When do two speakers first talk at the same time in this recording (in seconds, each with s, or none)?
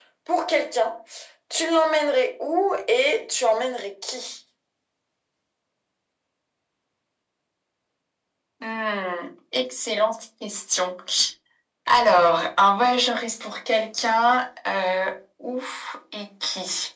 none